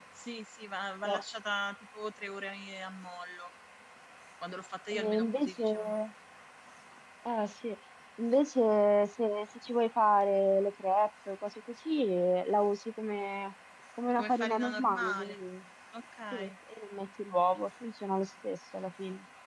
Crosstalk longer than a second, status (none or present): present